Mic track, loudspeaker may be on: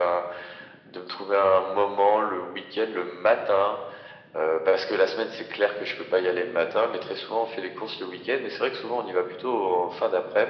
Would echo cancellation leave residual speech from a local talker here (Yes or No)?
No